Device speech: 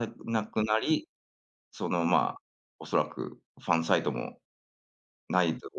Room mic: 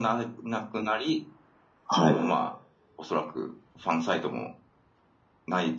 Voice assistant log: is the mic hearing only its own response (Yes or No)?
No